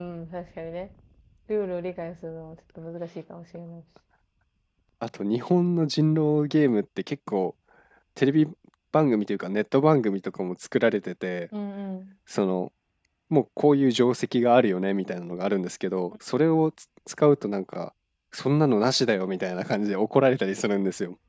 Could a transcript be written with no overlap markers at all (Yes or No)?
Yes